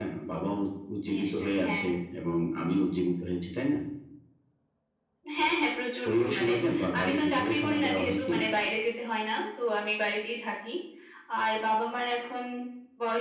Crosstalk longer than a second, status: present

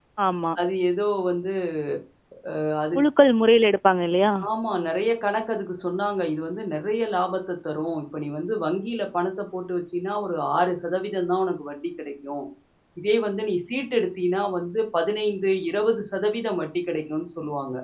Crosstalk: none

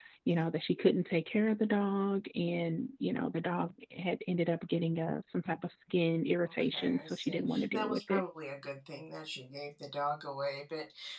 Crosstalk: present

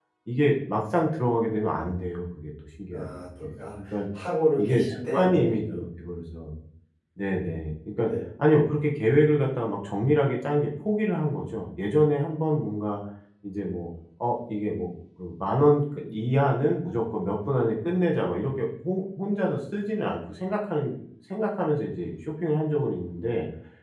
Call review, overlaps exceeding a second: present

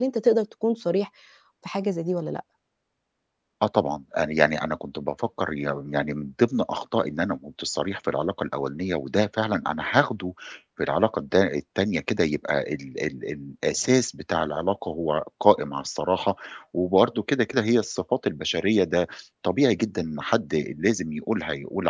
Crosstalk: none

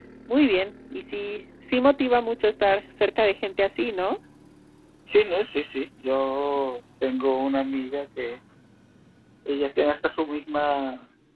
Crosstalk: none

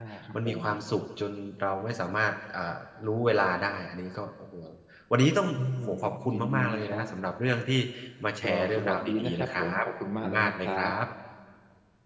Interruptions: present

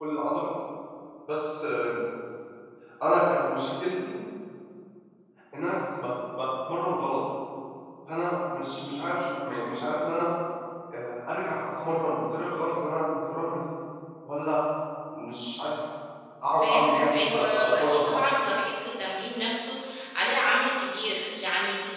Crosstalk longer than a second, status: present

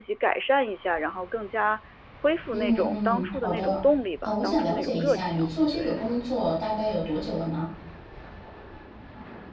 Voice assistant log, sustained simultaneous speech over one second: present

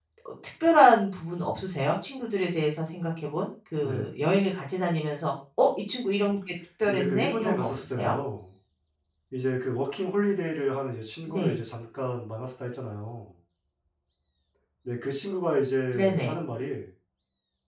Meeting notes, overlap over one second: present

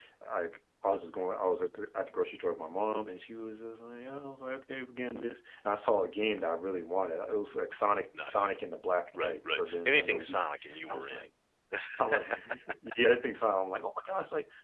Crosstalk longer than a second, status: present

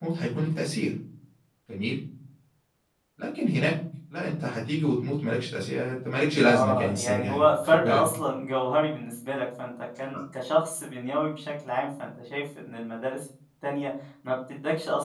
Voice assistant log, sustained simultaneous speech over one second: present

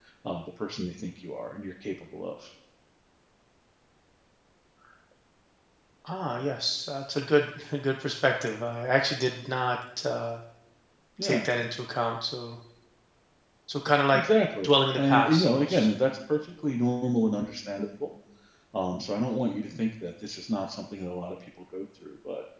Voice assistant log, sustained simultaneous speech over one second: present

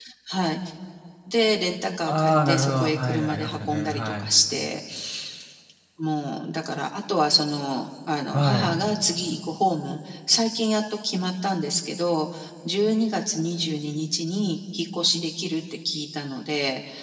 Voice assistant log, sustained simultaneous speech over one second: present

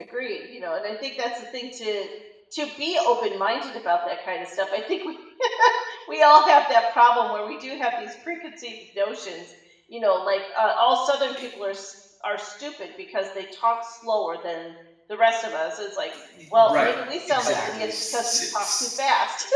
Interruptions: present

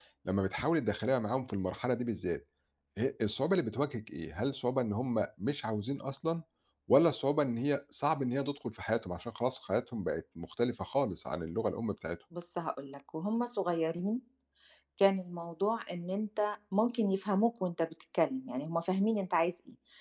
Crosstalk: none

